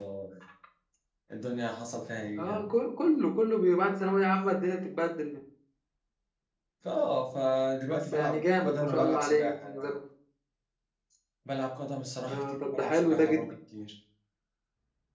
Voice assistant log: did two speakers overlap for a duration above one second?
Yes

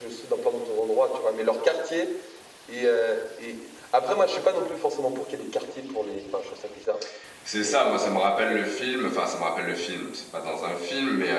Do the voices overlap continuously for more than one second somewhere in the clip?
No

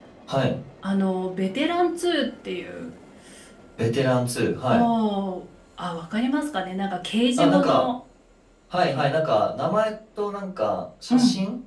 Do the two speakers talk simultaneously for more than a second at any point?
No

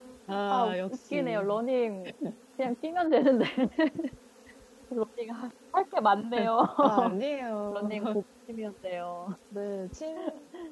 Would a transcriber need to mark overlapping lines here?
Yes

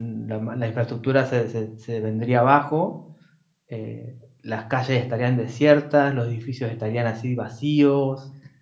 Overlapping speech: No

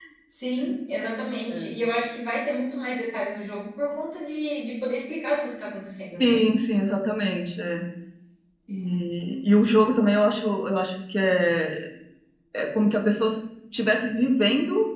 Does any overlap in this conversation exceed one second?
No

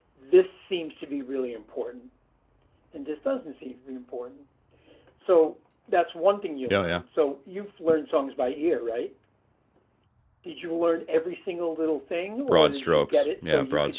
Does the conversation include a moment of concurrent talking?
Yes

